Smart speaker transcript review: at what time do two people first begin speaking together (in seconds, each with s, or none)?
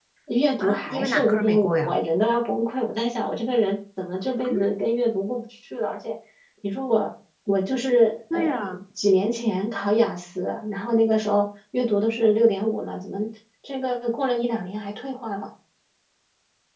0.6 s